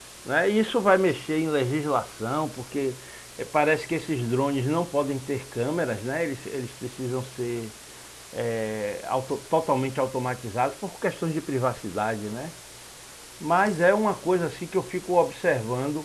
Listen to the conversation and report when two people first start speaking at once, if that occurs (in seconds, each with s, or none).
none